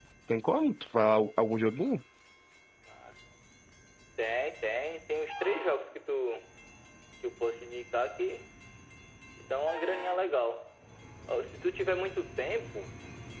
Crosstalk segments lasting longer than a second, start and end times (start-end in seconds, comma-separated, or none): none